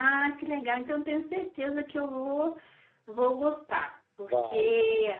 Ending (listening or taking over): listening